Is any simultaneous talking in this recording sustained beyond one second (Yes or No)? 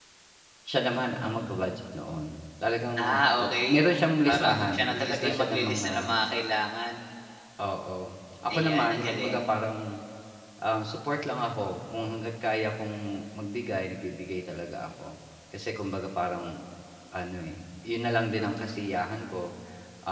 Yes